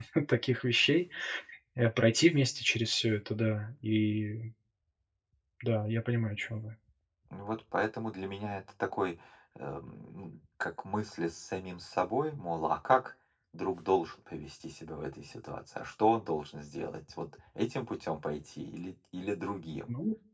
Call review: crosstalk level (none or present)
none